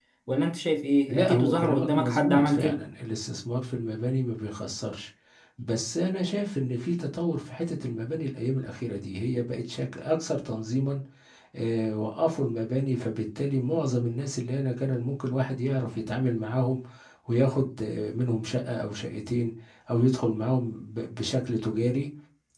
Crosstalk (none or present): present